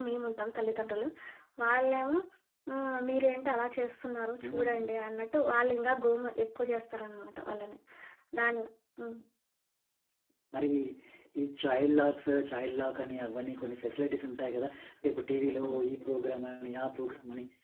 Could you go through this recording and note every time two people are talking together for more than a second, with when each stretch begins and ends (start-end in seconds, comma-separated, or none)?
none